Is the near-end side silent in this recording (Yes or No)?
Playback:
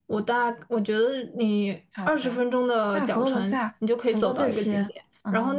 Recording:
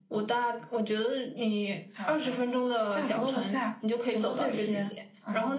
Yes